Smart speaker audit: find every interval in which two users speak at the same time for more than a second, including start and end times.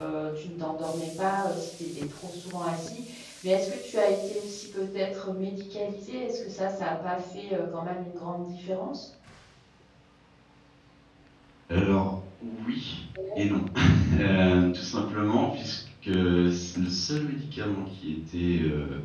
none

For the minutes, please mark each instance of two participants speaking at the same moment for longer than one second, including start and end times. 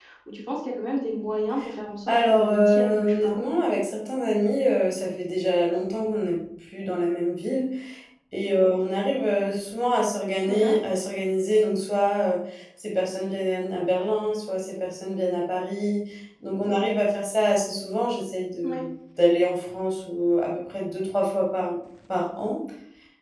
2.1-3.4

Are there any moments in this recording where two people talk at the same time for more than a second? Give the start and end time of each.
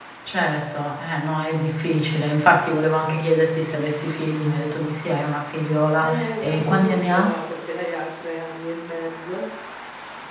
6.0-7.3

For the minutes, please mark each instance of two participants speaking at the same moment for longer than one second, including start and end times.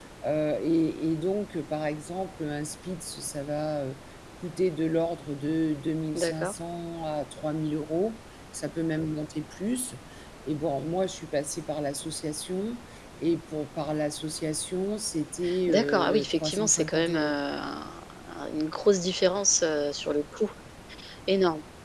15.7-17.3

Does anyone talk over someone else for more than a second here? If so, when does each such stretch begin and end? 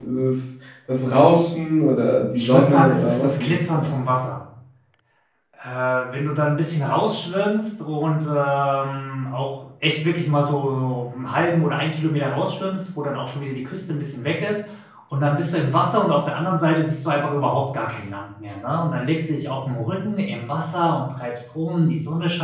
2.4-3.9

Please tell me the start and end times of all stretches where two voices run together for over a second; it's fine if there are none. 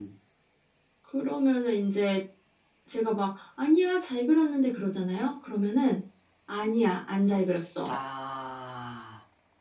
none

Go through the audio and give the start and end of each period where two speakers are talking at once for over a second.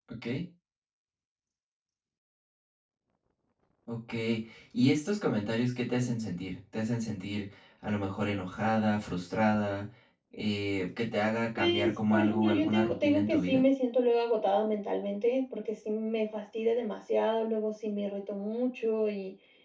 11.6-13.6

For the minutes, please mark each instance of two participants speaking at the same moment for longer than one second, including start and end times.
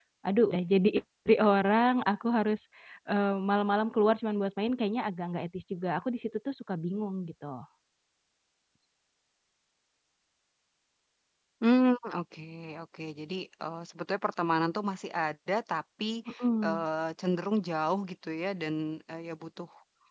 none

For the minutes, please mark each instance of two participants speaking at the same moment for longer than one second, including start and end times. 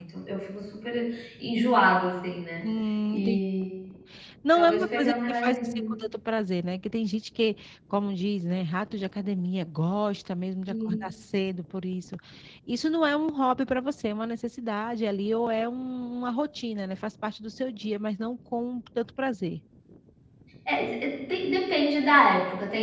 4.5-5.9

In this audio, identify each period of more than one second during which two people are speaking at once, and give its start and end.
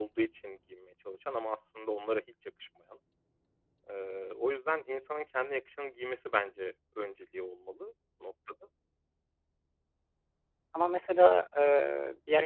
none

